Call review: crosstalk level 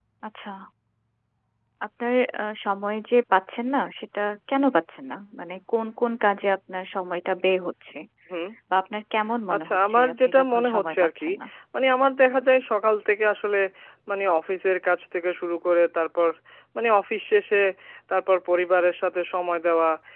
present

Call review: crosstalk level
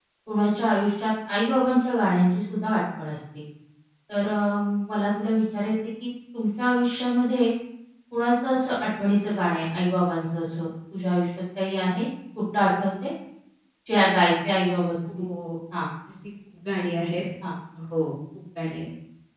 none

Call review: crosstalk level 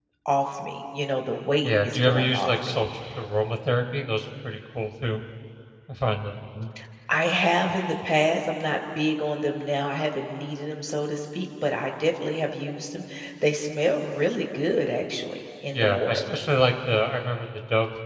present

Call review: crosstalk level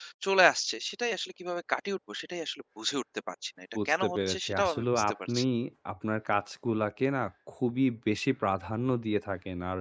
present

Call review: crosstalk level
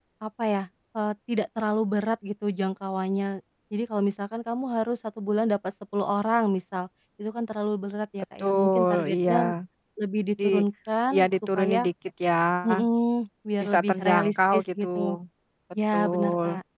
present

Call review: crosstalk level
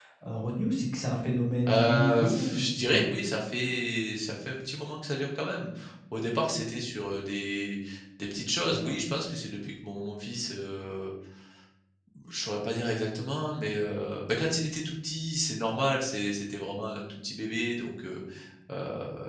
present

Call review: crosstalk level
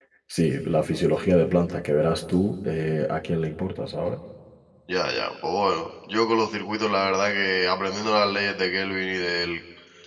none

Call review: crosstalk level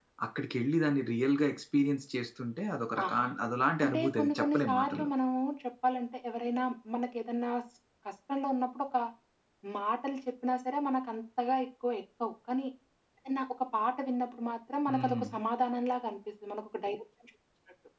present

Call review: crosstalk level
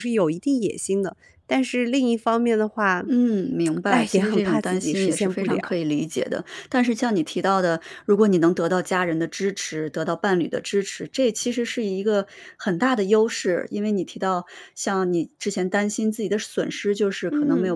present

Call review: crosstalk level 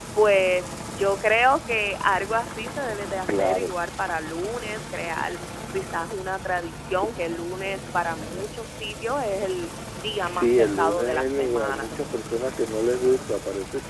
present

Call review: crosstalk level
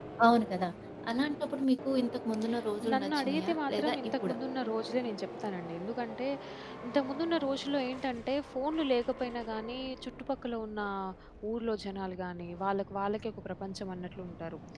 present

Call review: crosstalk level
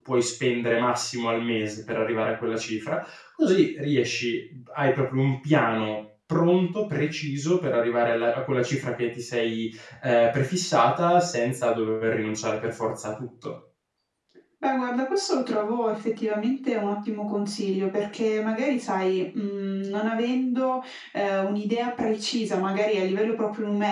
none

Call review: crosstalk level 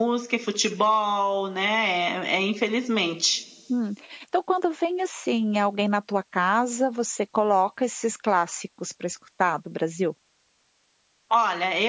none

